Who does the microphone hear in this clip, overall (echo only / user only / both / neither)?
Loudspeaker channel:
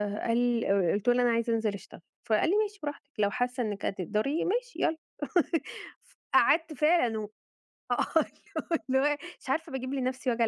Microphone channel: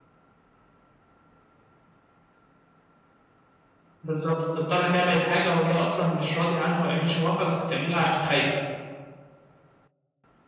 user only